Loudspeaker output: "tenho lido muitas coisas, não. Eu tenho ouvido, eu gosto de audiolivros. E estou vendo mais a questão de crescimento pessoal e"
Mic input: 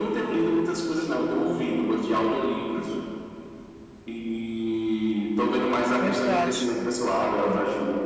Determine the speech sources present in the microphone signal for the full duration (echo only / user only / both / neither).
both